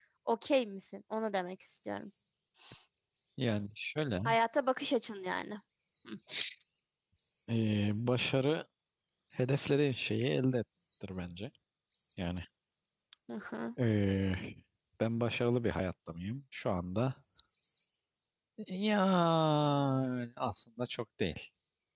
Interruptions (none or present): none